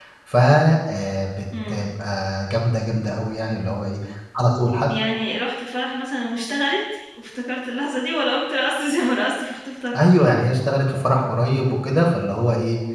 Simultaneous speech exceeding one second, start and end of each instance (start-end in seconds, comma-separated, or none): none